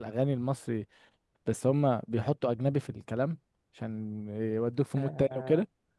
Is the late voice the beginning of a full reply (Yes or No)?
Yes